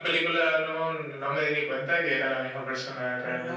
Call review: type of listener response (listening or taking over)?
taking over